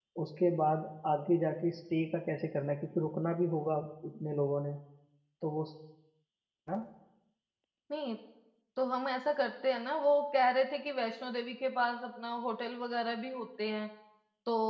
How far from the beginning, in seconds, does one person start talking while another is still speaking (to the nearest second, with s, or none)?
none